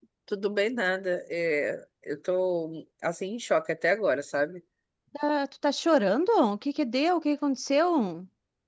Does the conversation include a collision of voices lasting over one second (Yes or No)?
No